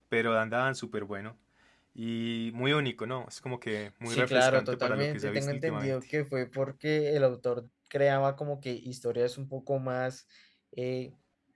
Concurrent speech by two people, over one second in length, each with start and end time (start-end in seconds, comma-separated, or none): 4.1-5.9